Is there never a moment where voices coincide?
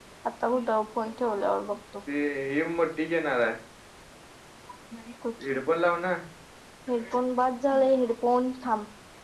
Yes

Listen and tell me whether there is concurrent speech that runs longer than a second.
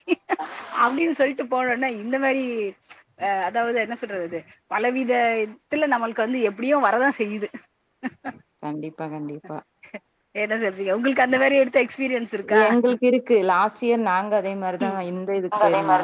No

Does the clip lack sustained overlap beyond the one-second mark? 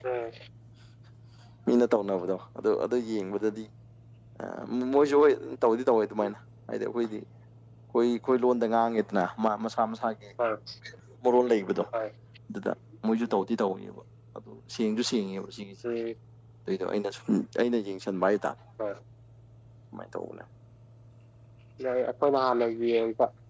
Yes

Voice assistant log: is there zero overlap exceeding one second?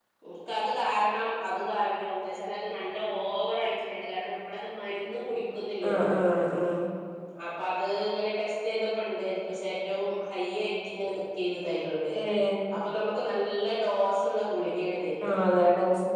Yes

